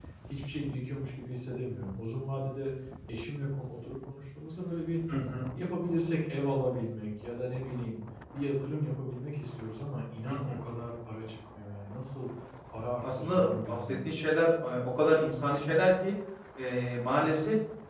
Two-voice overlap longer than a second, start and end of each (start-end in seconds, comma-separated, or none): 13.0-14.4